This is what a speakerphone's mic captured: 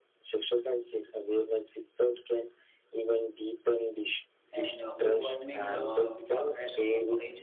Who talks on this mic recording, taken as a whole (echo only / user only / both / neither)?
both